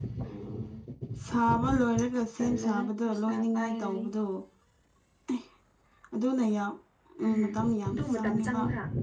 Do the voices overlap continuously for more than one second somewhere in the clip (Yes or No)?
Yes